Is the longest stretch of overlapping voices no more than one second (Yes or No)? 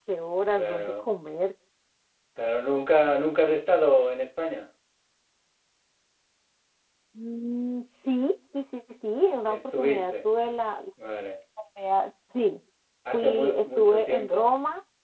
No